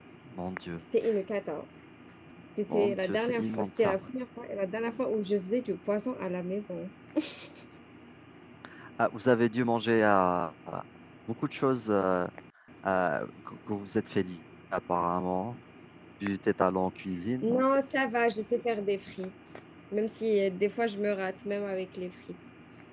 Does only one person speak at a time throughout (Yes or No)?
No